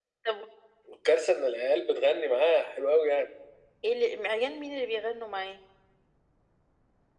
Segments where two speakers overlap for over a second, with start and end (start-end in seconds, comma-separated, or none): none